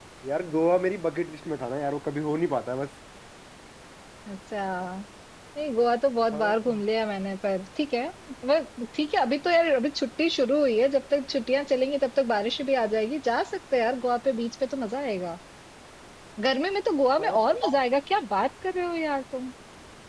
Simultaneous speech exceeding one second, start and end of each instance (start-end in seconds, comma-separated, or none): none